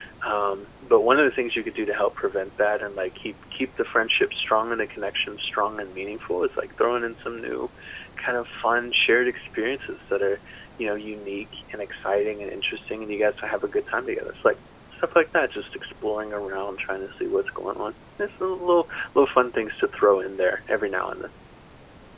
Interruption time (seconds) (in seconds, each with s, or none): none